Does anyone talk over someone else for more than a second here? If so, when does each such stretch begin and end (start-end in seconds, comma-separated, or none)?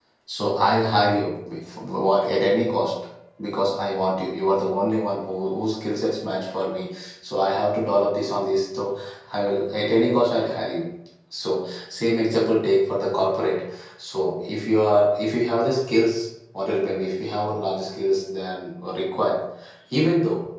none